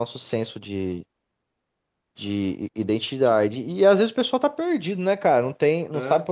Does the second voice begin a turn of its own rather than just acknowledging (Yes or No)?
No